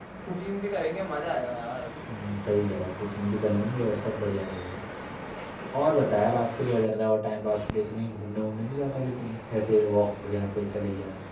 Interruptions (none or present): none